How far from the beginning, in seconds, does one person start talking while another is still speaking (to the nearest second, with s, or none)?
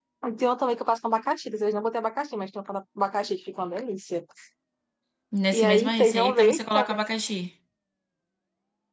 6 s